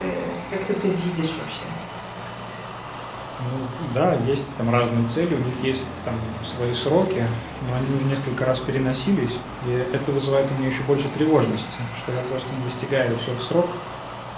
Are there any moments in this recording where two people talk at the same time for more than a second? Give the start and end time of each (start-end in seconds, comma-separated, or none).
none